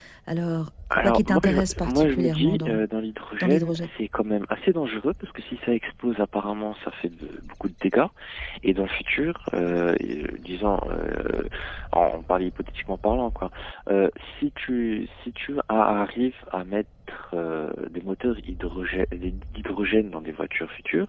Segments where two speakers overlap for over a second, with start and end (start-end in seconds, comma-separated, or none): 1.0-2.8